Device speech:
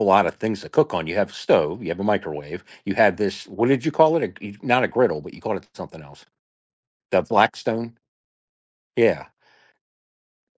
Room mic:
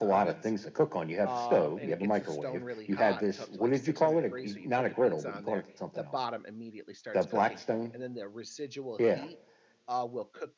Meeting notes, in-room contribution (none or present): present